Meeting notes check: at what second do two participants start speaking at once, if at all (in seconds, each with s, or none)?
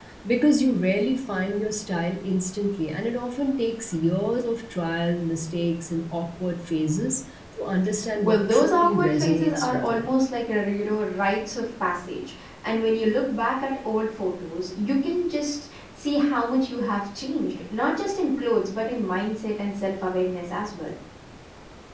8.2 s